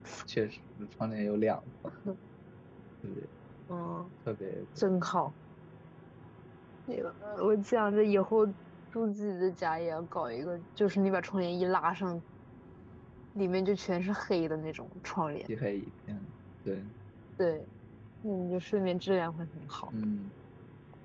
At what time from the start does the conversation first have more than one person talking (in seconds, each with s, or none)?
none